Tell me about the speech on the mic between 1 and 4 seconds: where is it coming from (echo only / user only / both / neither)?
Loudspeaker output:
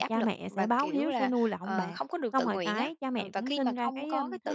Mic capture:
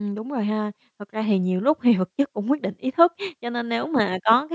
user only